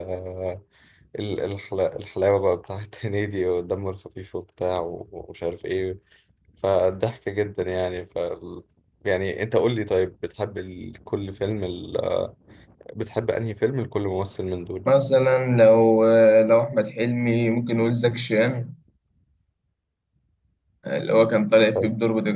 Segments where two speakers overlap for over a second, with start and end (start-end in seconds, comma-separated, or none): none